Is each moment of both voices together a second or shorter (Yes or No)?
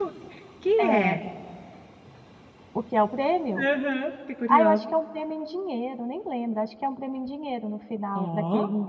Yes